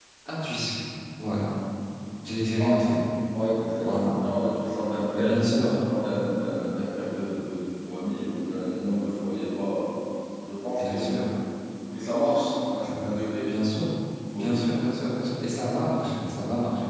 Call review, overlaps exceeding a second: none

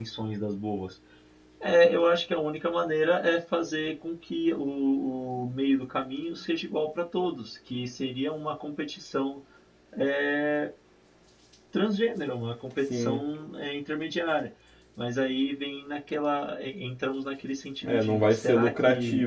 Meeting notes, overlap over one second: present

